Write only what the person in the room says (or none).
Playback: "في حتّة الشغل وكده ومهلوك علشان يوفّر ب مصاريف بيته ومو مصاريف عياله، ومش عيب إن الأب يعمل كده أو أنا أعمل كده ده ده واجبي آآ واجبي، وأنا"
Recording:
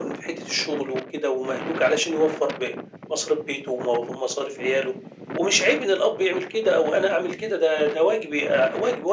none